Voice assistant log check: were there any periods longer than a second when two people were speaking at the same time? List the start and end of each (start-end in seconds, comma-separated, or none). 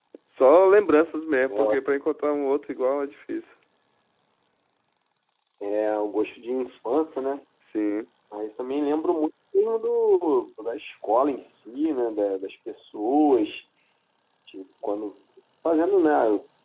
none